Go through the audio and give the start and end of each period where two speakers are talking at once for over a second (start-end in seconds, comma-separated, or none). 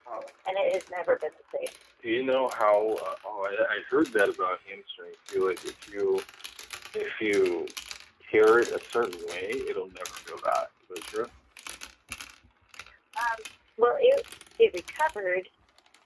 none